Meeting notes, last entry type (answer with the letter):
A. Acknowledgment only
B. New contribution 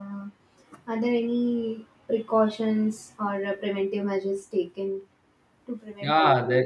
B